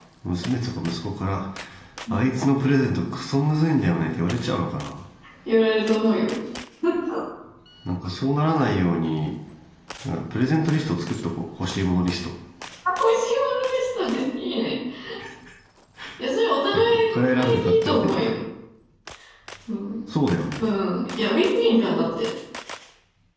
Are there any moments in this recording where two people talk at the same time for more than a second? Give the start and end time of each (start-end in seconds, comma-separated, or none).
16.7-18.2